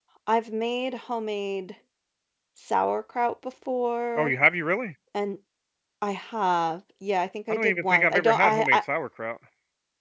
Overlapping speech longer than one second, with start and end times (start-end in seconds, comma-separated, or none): 7.5-8.8